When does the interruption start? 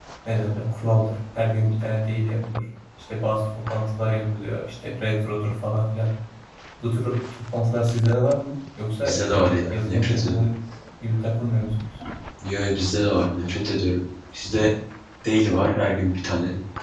9.0 s

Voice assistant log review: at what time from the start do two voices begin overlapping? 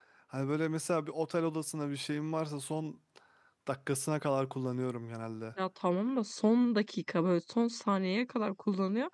none

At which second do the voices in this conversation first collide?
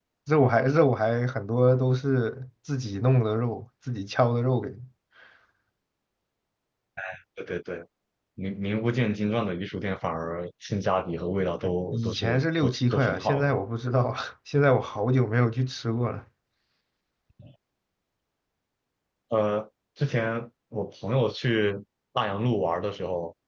11.6 s

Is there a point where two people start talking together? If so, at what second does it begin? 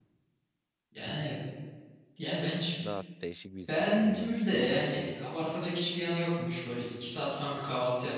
3.7 s

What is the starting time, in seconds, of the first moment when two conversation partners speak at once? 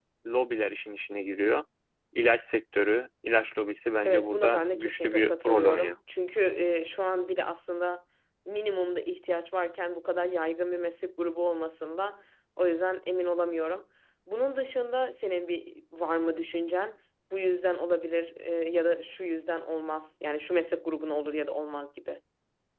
4.0 s

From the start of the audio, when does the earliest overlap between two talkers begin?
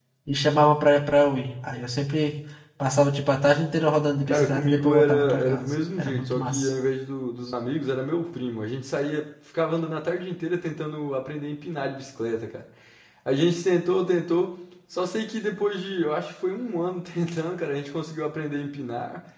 4.3 s

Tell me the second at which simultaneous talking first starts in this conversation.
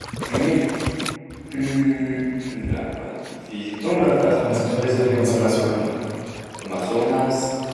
4.4 s

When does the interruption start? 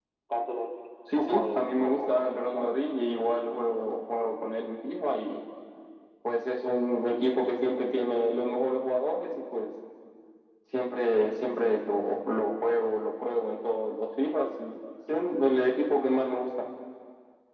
1.1 s

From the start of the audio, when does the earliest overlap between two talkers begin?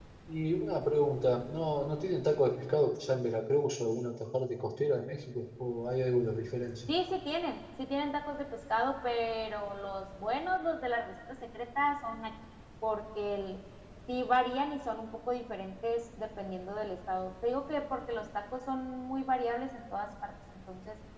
none

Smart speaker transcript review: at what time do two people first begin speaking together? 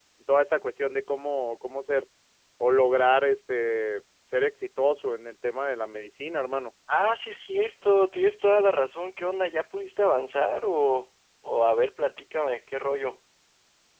none

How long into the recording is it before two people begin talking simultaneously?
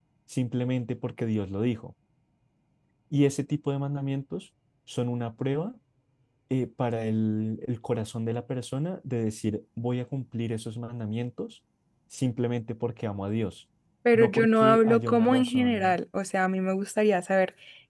14.1 s

